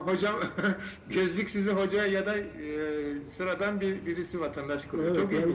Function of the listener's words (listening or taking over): taking over